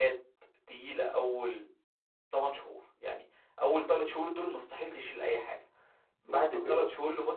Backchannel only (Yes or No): Yes